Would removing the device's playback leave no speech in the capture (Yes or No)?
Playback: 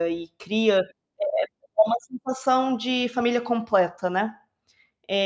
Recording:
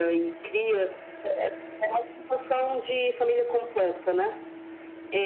Yes